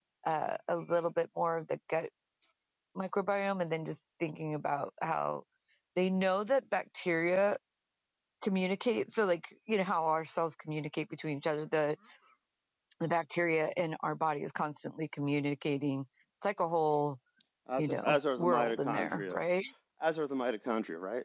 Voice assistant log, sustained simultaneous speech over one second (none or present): present